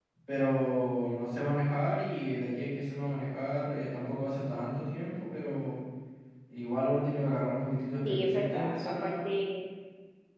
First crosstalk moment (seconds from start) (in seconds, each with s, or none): 8.1 s